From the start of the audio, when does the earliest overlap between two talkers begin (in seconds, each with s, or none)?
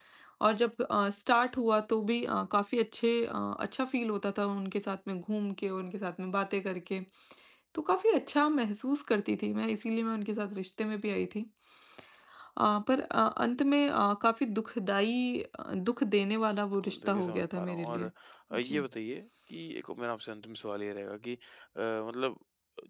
16.8 s